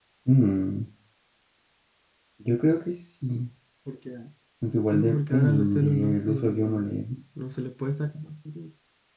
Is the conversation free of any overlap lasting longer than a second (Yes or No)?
No